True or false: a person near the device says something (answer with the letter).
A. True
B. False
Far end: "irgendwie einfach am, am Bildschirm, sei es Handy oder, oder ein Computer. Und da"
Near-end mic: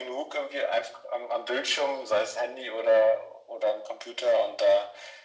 B